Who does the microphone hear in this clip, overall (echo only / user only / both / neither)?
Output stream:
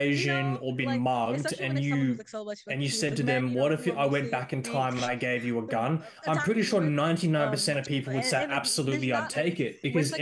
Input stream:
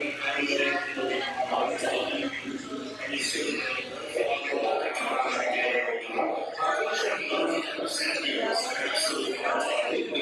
both